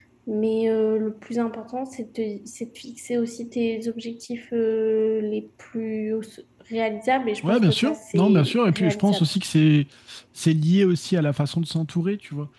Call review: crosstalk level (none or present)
present